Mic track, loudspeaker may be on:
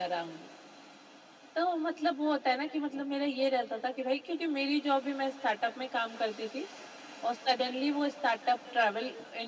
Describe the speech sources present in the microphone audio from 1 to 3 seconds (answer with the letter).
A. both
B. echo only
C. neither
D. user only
B